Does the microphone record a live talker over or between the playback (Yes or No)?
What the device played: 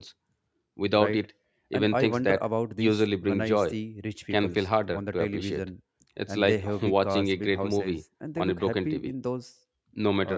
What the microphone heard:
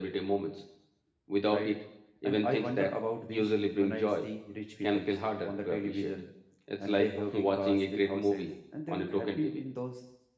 No